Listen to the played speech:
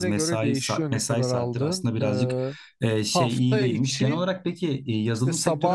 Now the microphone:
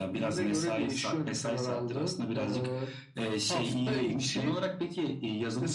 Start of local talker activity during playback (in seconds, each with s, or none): none